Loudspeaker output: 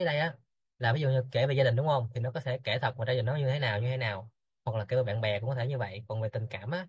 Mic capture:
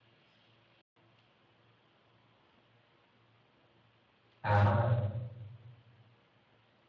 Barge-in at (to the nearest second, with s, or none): 4 s